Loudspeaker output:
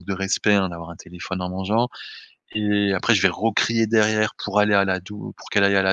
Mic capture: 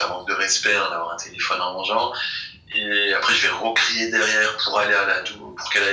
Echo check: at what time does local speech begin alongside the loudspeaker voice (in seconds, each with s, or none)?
none